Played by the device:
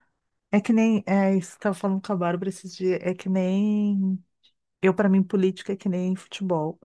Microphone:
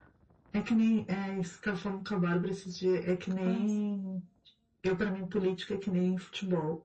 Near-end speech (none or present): present